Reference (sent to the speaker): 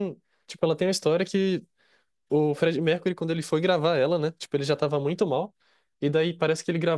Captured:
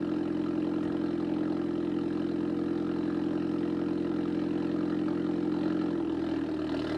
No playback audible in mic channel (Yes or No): Yes